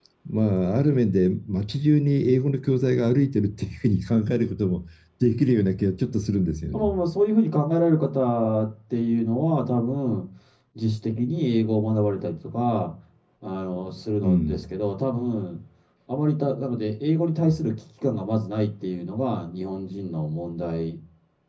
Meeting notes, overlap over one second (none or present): none